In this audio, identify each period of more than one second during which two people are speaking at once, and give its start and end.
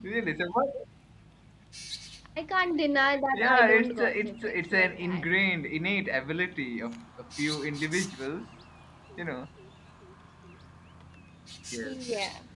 3.3-5.2

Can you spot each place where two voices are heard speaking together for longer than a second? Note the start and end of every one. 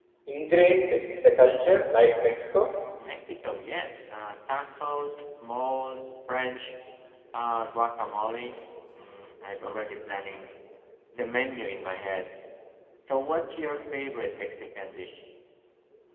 none

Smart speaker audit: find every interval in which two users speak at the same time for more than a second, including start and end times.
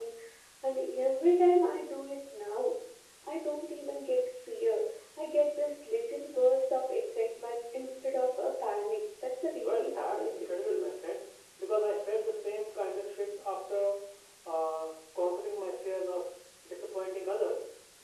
9.6-10.9

